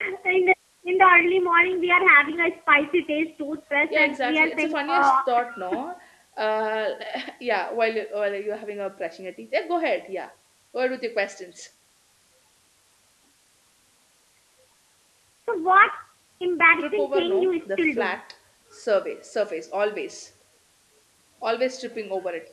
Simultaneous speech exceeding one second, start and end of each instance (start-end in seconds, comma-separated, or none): 3.9-5.1, 16.8-18.1